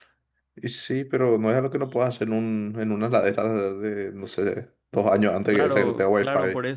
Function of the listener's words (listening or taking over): taking over